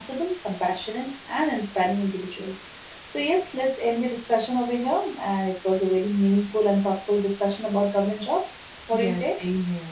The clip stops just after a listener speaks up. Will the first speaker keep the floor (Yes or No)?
No